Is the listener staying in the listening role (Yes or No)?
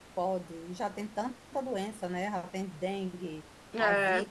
Yes